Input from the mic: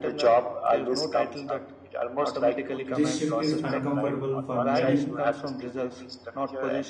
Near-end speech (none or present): present